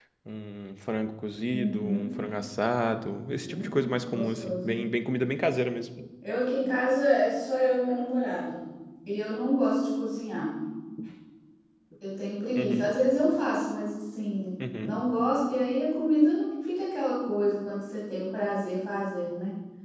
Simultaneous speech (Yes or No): Yes